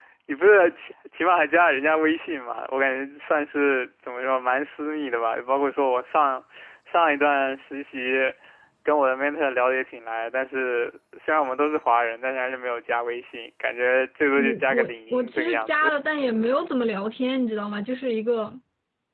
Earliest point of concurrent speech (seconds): 14 s

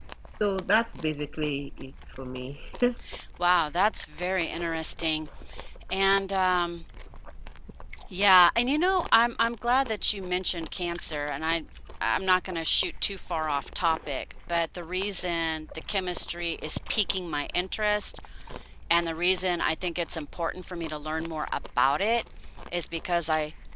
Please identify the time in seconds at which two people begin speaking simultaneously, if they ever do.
none

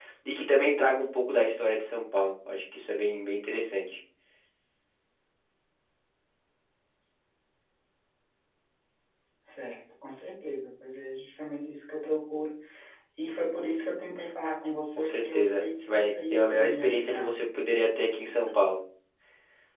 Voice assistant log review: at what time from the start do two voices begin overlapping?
15 s

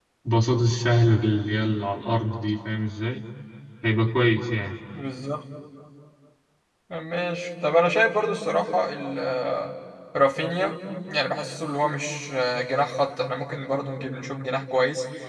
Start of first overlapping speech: none

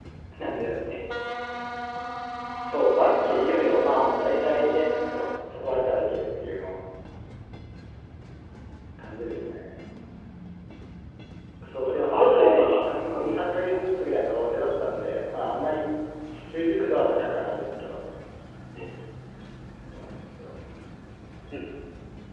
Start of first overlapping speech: 3 s

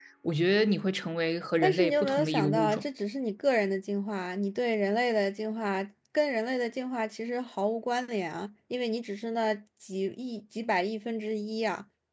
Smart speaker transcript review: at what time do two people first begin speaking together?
2 s

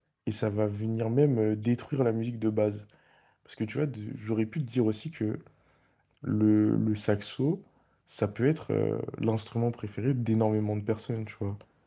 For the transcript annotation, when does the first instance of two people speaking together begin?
none

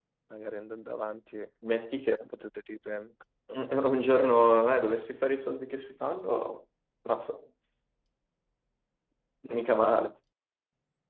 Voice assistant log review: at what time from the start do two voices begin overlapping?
none

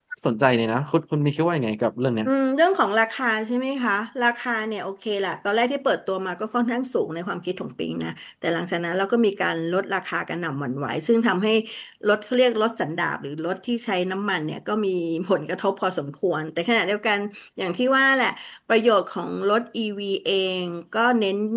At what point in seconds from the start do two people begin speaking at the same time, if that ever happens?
none

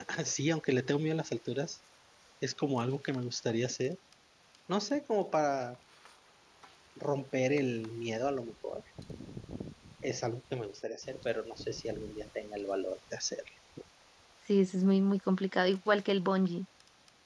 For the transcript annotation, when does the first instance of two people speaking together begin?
none

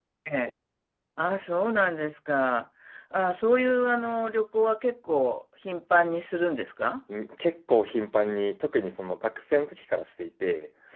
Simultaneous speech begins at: none

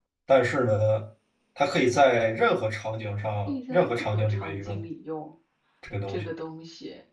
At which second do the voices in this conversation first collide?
3 s

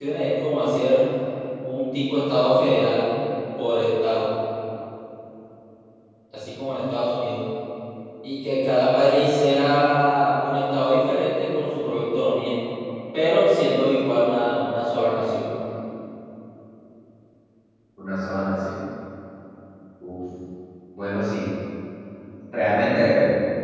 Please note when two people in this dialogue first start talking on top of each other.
none

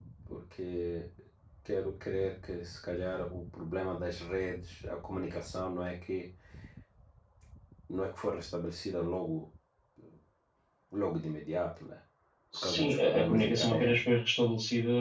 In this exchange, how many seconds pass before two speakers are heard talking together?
13 s

